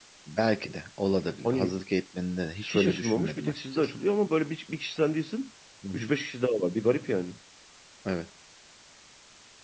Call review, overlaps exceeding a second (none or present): present